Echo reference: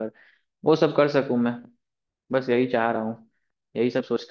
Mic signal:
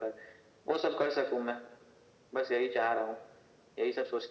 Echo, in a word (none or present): present